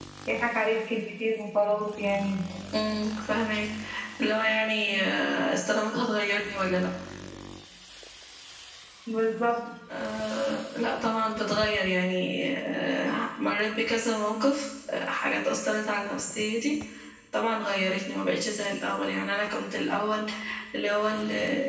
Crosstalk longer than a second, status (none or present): none